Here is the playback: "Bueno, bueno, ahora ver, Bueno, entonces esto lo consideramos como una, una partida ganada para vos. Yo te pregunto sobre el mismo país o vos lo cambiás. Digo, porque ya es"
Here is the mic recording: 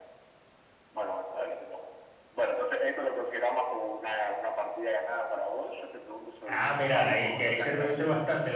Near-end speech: present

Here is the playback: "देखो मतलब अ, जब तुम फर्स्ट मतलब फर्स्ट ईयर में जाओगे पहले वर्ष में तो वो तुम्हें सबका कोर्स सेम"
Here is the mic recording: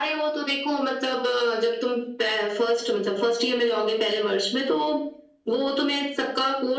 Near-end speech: none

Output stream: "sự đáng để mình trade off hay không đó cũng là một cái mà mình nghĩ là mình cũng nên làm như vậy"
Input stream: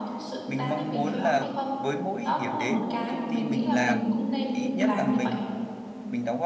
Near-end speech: present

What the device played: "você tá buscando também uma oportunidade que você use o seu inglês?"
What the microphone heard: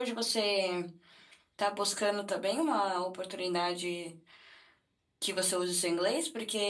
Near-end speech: none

